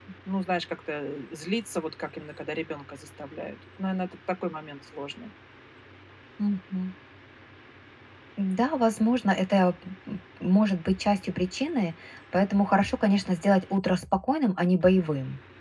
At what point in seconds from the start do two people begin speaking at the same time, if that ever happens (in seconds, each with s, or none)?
none